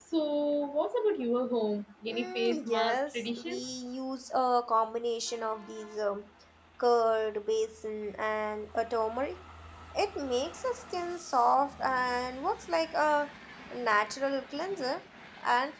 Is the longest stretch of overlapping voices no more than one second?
No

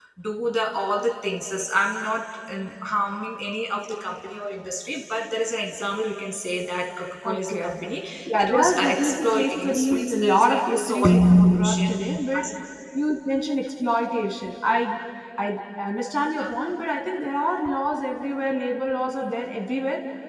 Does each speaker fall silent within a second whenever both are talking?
No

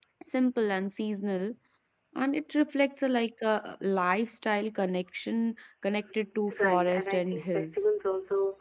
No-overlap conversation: No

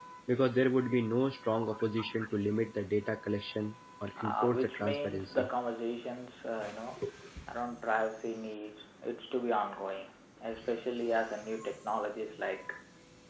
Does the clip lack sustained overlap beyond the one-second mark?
No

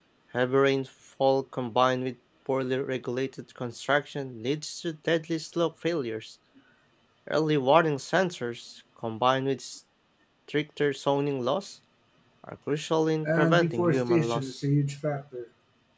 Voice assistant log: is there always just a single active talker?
No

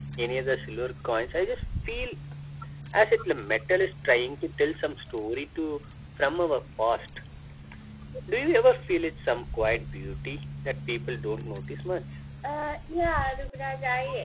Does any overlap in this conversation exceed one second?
No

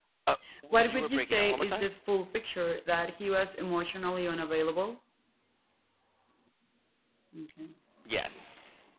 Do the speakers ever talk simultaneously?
Yes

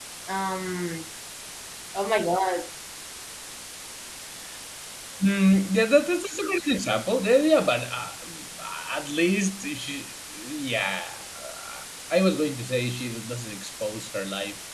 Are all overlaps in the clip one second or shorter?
Yes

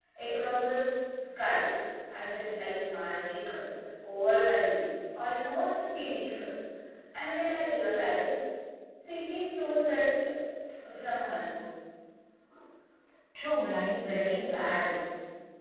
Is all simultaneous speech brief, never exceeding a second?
No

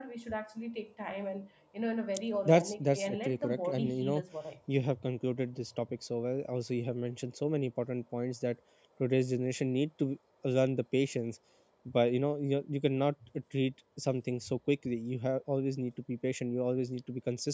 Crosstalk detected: Yes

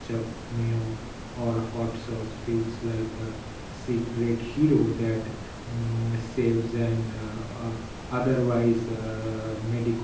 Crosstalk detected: No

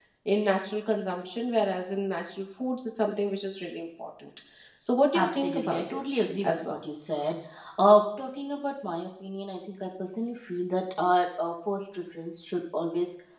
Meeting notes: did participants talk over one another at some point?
Yes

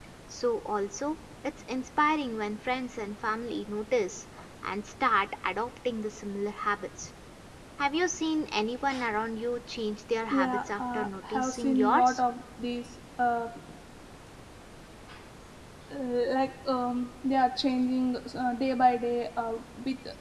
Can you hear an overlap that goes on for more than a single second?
Yes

